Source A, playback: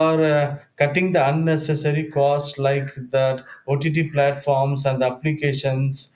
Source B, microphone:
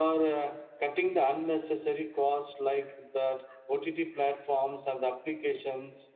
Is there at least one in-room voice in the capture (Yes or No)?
No